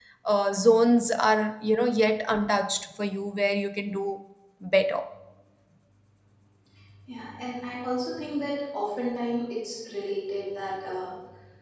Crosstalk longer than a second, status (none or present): none